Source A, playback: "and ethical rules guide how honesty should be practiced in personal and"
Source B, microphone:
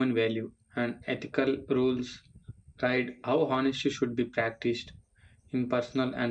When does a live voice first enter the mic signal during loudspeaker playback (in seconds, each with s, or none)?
none